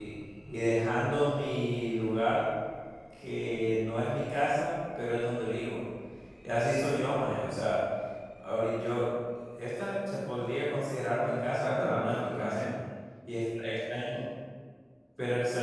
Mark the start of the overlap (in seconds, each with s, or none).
11.2 s